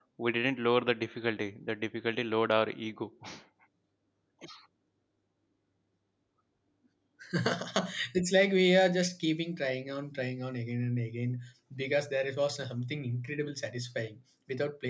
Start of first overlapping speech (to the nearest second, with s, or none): none